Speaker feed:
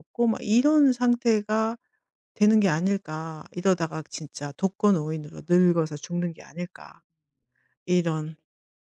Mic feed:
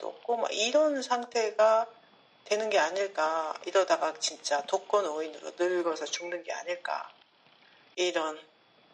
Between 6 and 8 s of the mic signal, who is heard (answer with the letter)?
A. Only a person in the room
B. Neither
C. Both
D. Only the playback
D